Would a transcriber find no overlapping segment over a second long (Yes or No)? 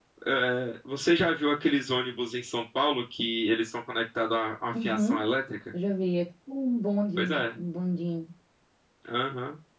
Yes